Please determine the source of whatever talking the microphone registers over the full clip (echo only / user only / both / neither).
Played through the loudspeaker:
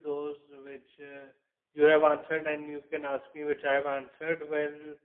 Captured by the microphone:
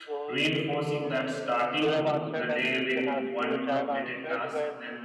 both